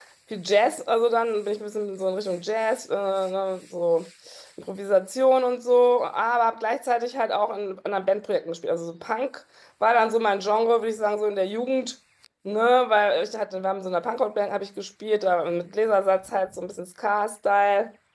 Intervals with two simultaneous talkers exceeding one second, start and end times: none

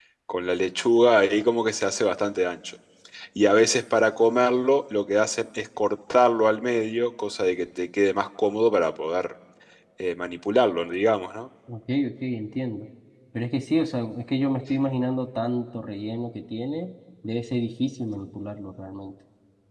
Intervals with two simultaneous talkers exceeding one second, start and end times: none

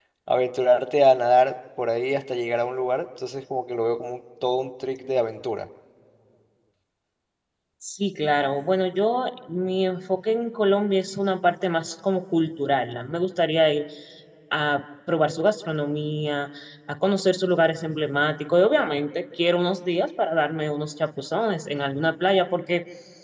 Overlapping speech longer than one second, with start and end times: none

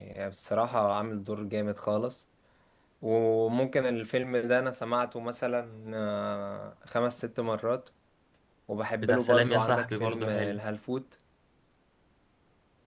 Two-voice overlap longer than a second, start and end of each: 9.0-10.6

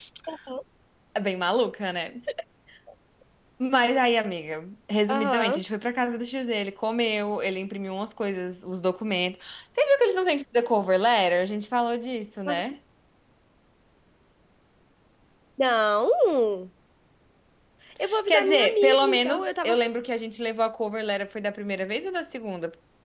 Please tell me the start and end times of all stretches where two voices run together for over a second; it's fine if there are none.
18.3-19.8

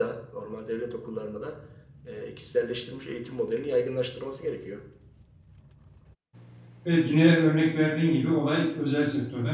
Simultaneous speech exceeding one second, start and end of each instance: none

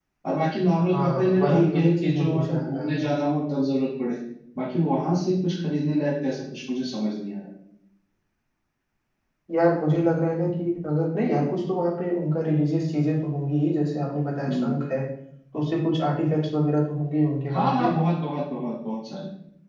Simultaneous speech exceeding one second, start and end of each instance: 0.9-2.9

